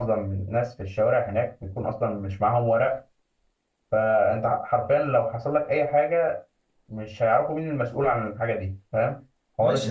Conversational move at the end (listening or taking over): taking over